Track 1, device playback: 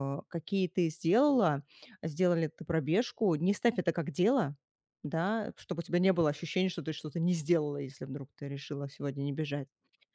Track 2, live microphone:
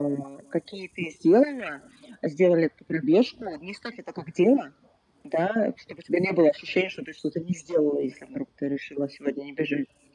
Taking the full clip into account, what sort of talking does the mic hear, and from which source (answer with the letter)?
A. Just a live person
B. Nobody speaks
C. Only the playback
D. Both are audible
C